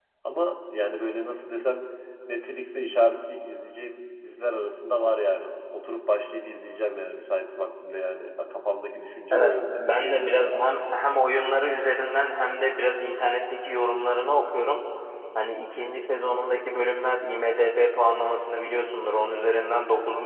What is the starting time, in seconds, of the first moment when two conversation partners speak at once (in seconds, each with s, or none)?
9.3 s